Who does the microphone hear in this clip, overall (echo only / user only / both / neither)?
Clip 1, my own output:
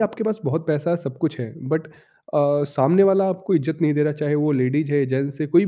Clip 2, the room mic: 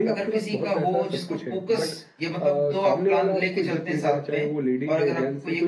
both